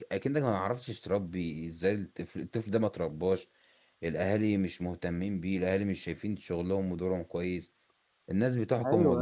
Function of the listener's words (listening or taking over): listening